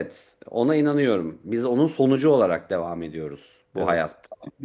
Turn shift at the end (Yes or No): No